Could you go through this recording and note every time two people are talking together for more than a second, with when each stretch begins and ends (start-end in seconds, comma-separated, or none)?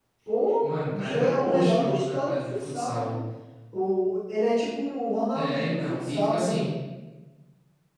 0.9-3.1, 5.3-6.7